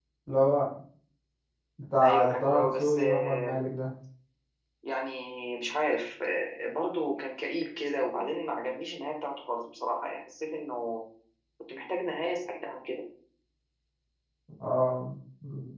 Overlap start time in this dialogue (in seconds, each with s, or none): 2.0 s